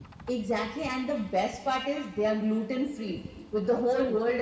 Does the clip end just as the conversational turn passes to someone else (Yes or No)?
No